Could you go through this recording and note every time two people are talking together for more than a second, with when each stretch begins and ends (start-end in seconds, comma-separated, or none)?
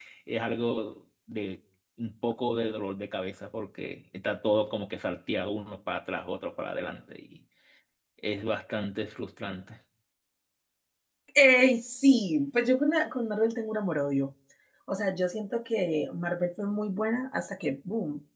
none